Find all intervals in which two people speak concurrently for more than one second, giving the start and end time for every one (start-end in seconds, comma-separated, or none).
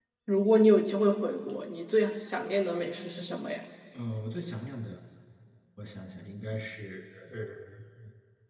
none